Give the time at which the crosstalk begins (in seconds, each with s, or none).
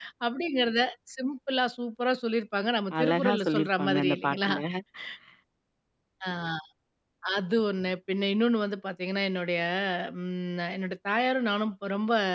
2.9 s